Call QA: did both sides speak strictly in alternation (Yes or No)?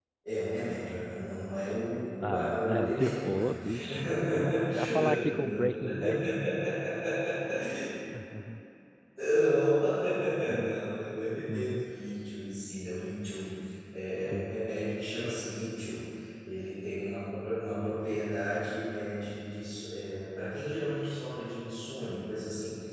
No